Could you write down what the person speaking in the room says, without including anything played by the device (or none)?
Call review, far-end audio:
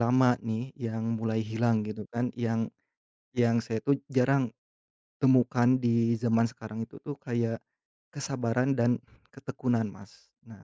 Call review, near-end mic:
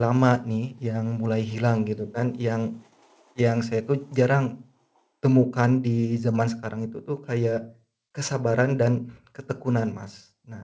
none